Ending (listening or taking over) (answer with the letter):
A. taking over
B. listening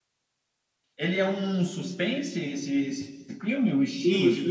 A